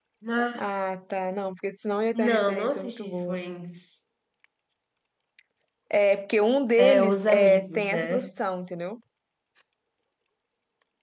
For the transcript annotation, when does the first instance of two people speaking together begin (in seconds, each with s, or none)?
2.1 s